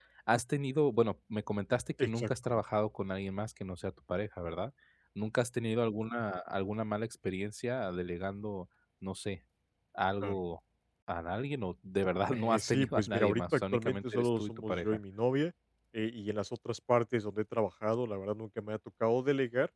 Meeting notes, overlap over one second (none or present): present